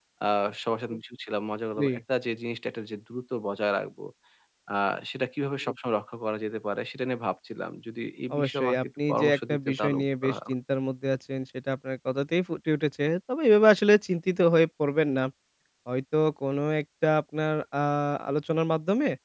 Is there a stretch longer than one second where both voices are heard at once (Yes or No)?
Yes